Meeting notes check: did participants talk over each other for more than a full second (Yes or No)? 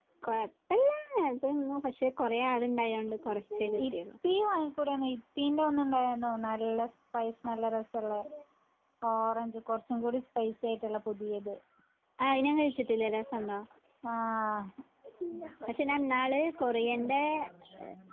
No